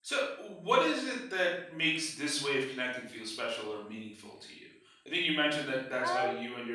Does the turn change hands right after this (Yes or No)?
No